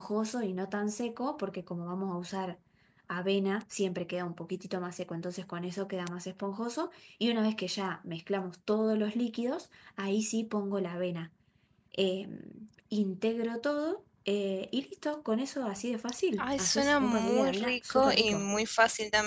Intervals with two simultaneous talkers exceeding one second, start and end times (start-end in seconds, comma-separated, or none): 16.4-18.5